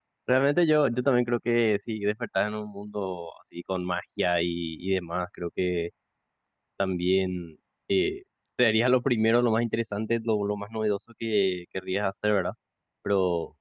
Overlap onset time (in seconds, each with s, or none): none